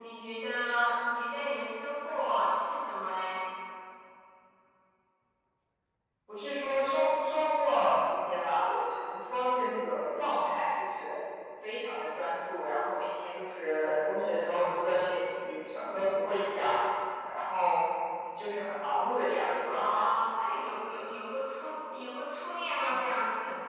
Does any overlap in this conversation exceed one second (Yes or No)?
No